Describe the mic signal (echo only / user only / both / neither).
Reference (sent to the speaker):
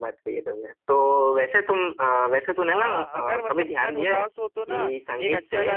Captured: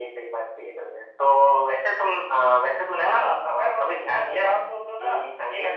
echo only